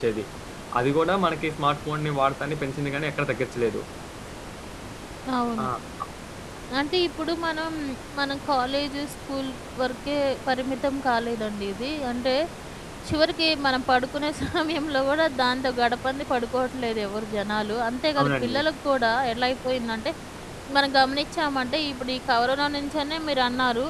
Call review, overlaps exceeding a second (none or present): none